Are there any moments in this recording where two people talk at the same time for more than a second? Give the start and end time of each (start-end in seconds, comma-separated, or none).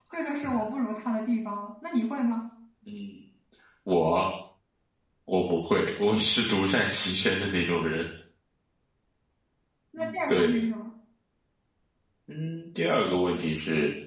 none